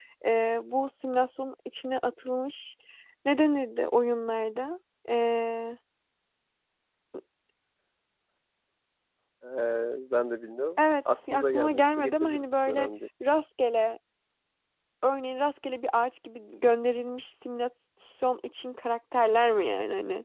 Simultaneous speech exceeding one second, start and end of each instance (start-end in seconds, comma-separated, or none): 10.8-12.9